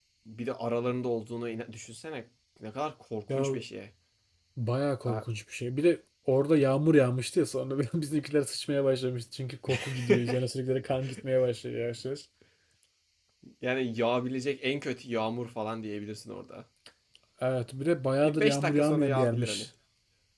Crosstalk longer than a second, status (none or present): present